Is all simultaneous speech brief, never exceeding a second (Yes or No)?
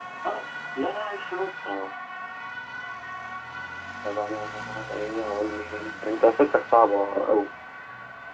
Yes